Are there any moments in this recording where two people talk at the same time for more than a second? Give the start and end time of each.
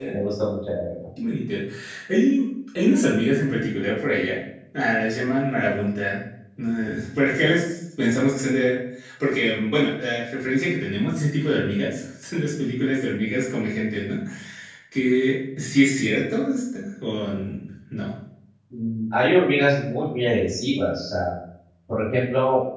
none

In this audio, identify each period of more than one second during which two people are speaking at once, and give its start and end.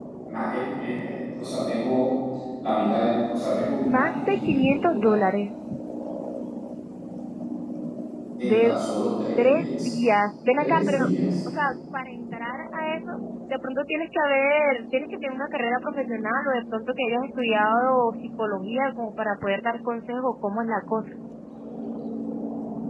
3.9-5.2

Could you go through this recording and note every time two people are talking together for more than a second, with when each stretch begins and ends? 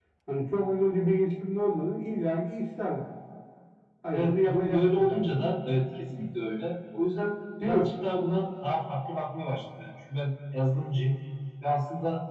4.1-5.4

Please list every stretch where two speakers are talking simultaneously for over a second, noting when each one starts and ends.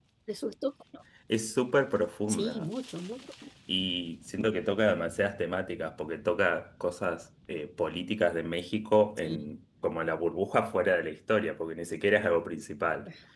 none

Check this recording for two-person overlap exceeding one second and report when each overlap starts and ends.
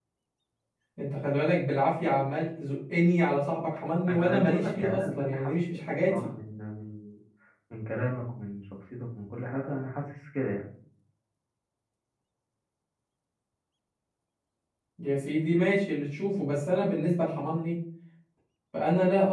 4.1-6.3

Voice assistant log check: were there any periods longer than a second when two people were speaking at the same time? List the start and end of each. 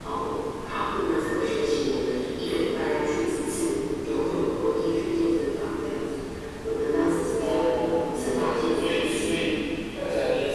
7.4-9.4

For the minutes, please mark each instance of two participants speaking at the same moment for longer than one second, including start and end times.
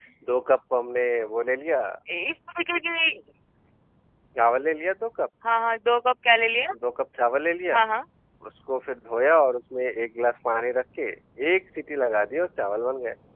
none

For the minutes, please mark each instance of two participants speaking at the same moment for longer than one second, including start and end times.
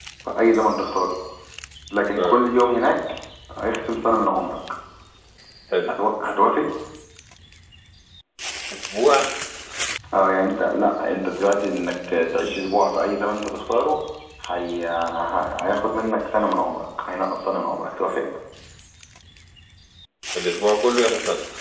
none

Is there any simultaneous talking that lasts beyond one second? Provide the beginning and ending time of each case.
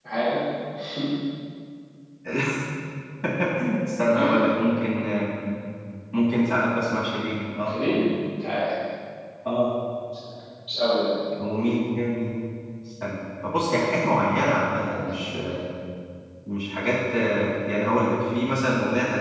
none

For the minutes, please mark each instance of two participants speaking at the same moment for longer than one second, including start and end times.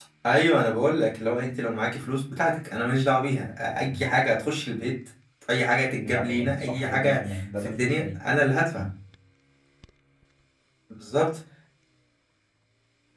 6.0-8.2

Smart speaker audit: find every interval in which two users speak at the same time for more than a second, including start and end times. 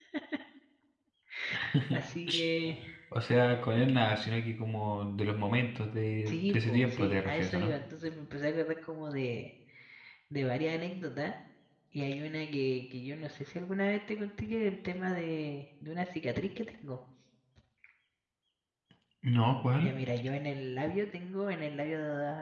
6.3-7.7

